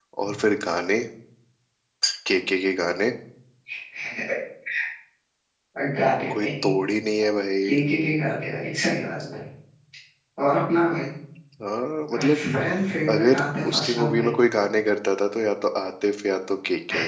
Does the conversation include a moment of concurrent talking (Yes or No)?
Yes